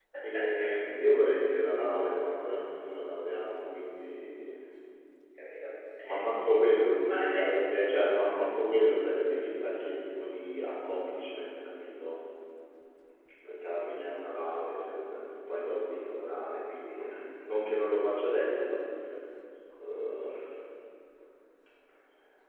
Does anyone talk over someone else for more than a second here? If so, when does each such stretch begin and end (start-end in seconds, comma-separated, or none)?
6.0-7.5